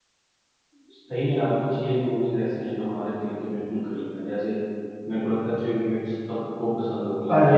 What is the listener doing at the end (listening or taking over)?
taking over